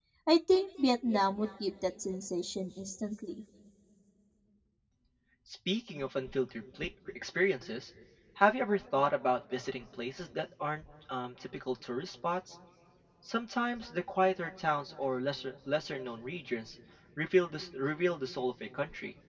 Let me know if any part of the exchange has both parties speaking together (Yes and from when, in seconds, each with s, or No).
No